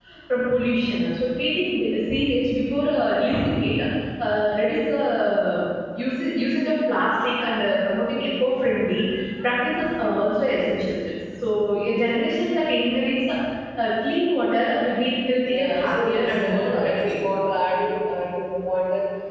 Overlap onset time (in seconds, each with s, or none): 15.5 s